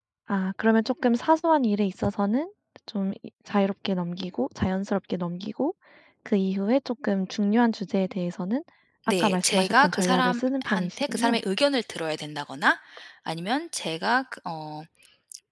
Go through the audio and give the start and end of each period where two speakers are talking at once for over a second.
9.2-11.4

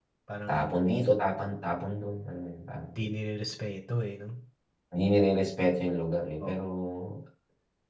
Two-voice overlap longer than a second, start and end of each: none

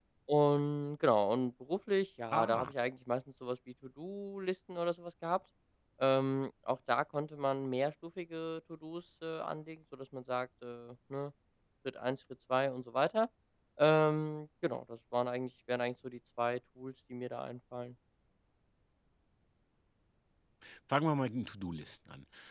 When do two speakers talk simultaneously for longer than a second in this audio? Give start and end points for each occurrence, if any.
none

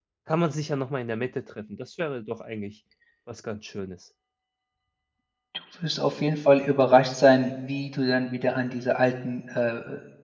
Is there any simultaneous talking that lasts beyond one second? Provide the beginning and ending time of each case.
none

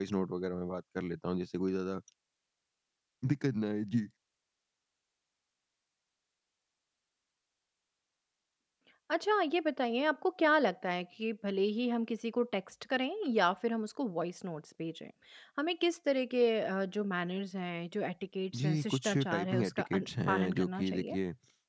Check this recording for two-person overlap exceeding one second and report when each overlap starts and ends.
18.6-21.1

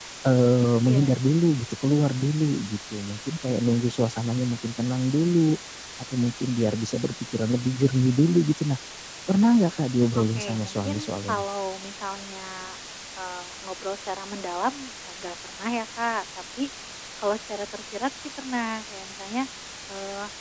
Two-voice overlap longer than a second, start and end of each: 10.2-11.4

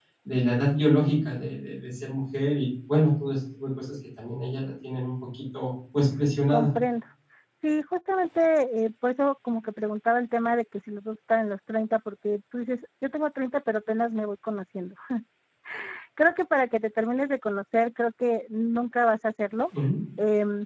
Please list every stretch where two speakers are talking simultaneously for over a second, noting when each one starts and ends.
none

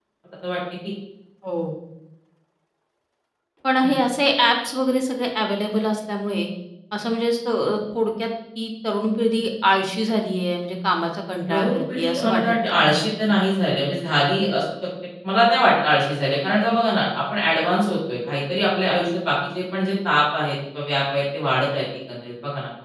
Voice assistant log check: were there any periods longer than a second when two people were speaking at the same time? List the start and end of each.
11.5-13.1

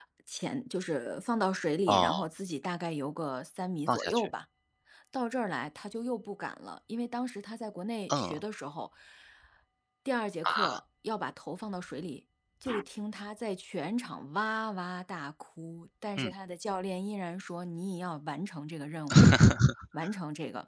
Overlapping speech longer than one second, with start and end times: none

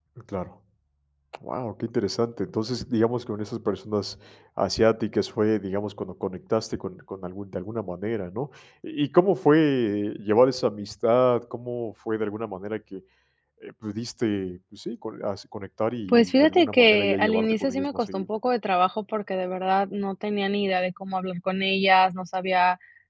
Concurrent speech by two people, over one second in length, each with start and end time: 16.1-18.2

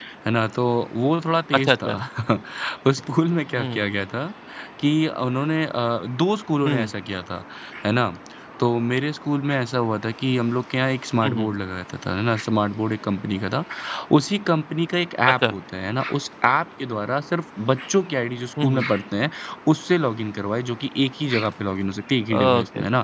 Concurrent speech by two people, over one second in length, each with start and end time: none

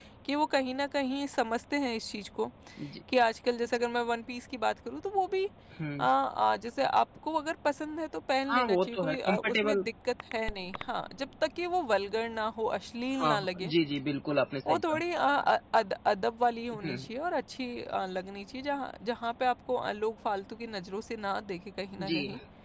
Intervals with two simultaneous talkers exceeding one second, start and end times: 8.5-9.8

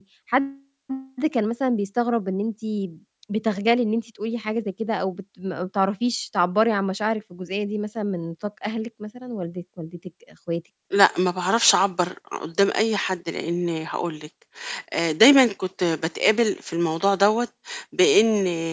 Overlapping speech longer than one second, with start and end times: none

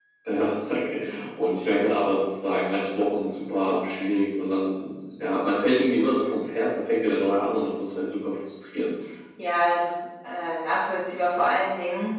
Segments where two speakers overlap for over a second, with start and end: none

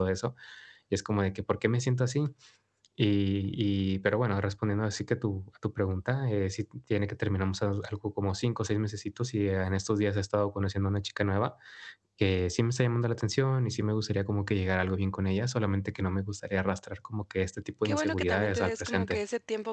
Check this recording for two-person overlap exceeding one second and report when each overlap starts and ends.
17.8-19.2

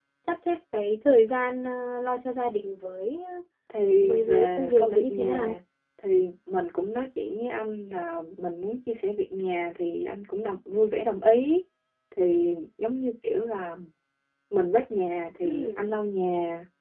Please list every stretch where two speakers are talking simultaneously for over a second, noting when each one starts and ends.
4.0-5.6

